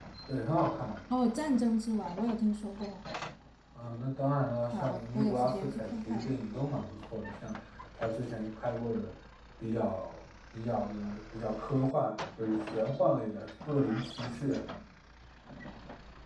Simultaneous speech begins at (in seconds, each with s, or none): 4.7 s